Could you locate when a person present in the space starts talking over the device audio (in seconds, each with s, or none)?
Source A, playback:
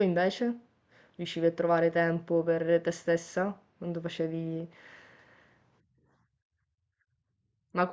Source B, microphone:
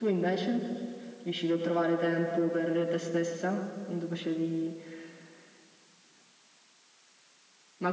none